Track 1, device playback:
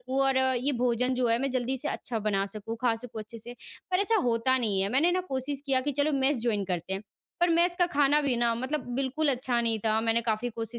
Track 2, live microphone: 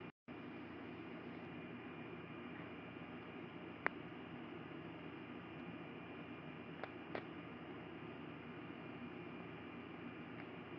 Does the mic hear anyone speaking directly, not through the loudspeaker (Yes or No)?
No